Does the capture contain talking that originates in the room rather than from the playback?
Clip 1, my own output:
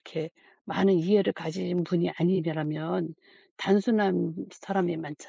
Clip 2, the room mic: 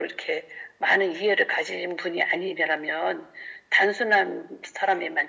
No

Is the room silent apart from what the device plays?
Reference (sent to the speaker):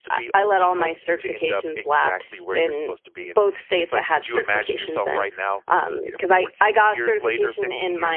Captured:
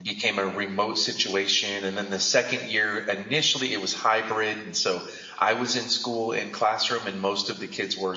No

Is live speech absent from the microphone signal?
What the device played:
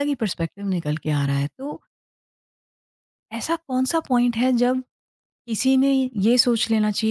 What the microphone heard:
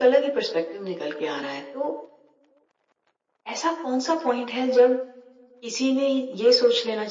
Yes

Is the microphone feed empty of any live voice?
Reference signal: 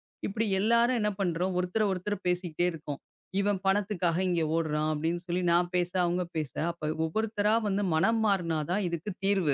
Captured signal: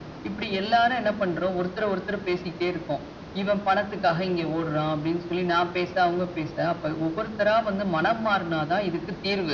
Yes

